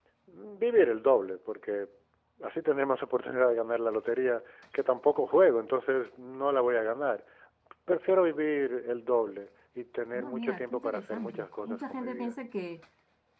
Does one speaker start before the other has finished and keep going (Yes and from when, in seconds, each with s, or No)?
Yes, from 10.1 s